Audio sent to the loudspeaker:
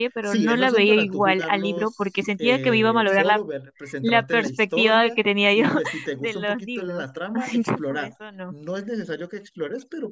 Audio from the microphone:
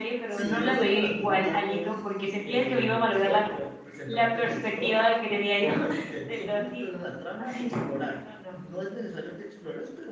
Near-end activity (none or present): none